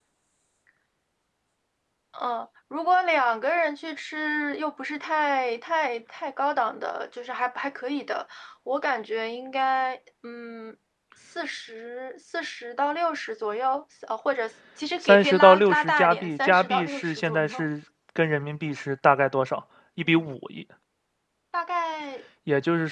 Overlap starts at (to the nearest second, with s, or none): 15 s